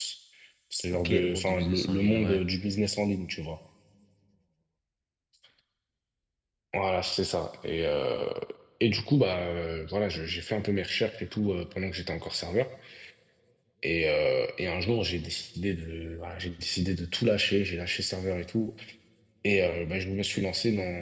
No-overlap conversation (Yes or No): No